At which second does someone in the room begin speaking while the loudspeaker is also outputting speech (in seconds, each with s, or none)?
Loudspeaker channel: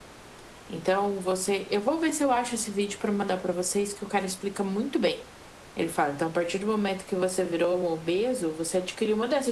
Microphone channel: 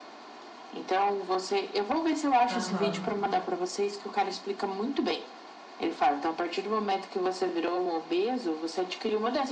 2.5 s